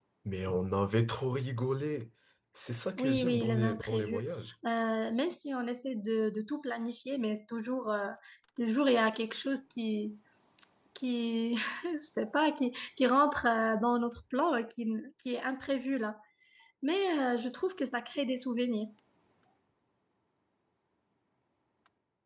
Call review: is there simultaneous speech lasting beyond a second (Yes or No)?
Yes